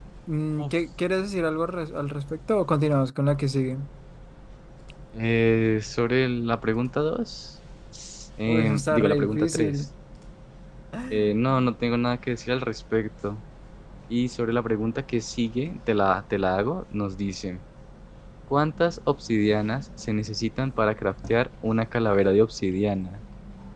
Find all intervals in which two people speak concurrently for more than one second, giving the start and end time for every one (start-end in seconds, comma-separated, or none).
8.5-9.8